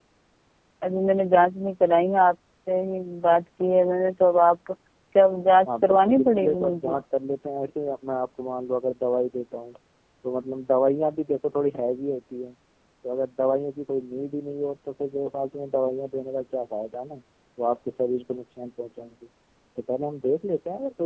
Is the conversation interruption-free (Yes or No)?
No